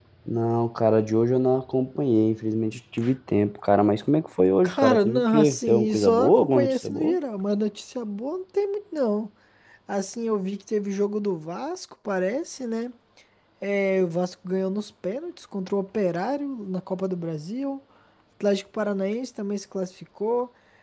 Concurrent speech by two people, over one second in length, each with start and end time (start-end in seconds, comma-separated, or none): 4.6-7.2